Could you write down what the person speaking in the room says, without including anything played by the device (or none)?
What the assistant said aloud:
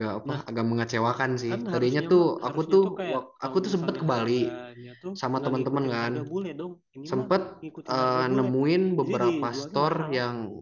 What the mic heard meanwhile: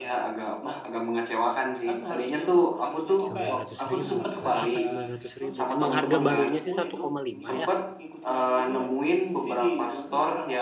900 ribu? Buat apa 900 ribu? Emang harga barunya sih satu koma lima ya?